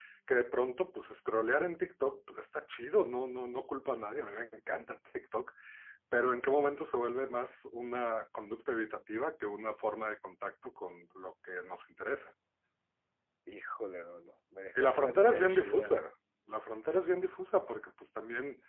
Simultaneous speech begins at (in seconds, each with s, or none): 14.8 s